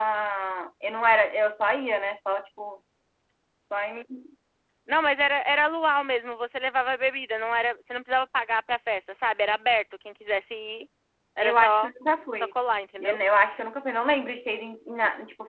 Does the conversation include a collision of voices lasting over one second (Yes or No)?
No